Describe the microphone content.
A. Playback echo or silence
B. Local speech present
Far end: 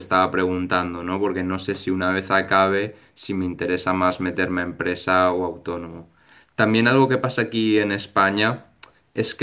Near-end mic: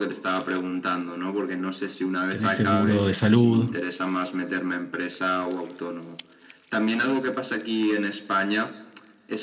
B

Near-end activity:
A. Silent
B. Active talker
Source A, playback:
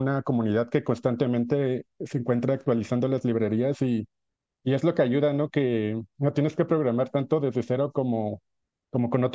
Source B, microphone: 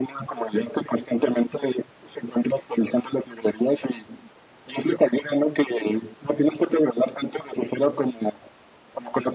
A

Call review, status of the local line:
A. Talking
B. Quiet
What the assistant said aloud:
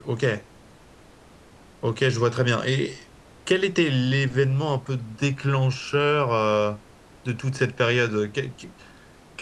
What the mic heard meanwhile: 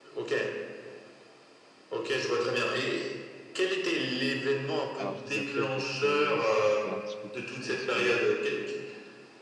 A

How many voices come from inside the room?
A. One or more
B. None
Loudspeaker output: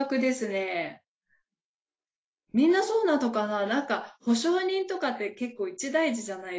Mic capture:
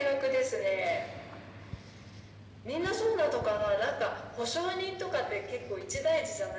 B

